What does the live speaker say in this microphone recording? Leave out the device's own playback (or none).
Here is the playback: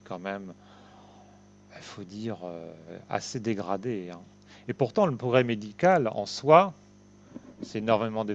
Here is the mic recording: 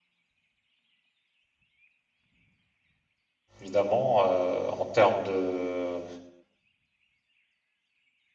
évidemment, euh, en termes de,